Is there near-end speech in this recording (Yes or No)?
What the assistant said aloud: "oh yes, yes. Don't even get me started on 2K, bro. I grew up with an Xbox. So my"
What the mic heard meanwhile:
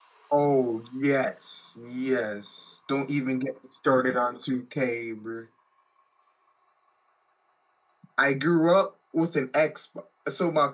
No